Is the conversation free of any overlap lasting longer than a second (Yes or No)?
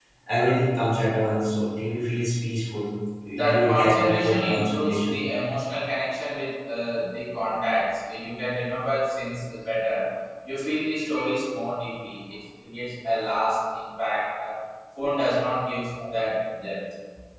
No